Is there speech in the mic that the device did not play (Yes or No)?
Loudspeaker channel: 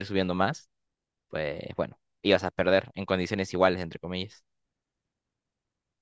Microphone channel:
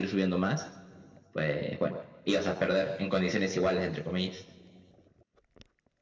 No